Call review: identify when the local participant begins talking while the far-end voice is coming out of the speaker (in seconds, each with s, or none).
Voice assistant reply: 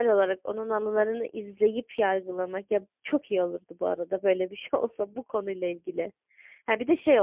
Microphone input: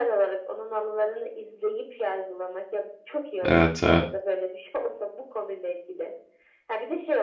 3.5 s